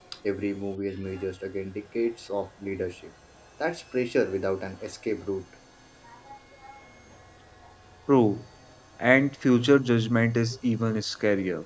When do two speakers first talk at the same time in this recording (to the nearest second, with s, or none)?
none